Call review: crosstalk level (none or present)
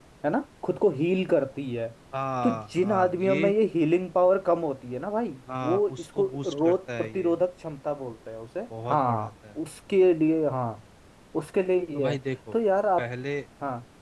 present